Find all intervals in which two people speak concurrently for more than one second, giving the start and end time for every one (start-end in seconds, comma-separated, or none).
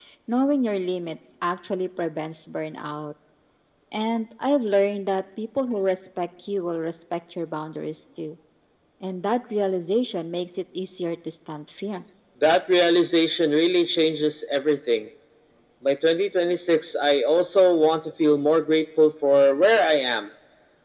none